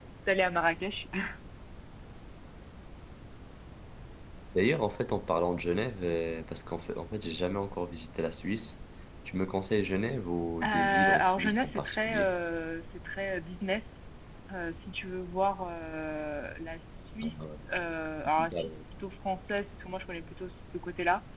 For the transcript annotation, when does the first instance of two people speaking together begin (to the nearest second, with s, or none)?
11 s